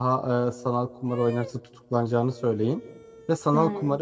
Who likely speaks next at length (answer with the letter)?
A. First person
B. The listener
A